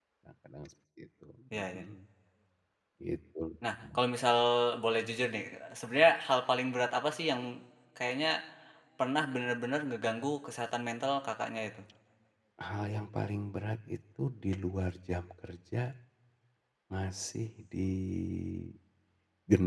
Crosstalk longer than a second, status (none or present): none